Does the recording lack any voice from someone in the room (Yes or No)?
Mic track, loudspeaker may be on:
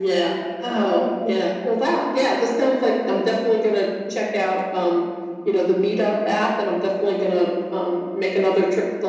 Yes